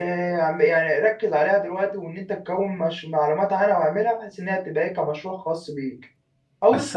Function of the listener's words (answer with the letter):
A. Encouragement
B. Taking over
B